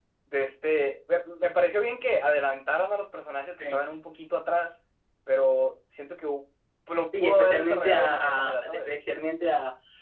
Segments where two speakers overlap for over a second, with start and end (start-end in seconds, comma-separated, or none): 7.1-8.9